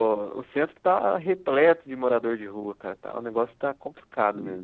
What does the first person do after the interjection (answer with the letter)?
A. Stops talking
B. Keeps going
A